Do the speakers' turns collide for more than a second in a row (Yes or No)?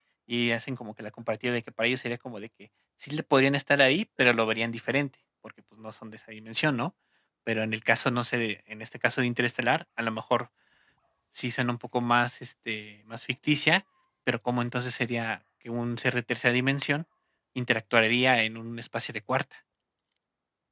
No